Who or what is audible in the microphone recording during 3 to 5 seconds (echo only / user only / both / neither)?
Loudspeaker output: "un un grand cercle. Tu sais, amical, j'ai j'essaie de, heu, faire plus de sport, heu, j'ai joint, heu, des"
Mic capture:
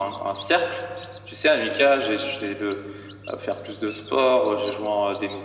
echo only